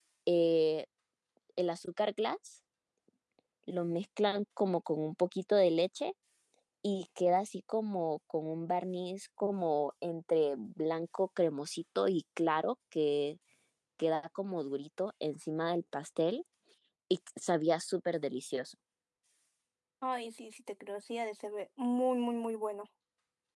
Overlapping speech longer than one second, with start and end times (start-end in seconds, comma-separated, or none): none